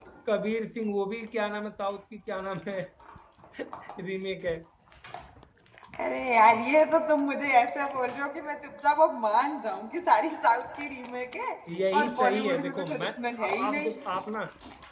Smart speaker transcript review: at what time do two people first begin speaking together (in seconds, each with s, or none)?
12.0 s